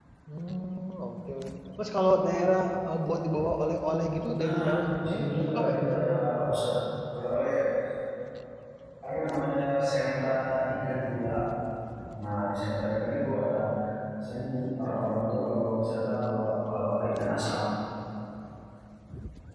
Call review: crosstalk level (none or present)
present